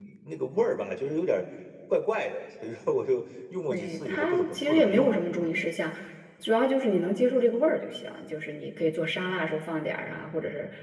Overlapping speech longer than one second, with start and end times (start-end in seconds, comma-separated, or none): 3.7-5.5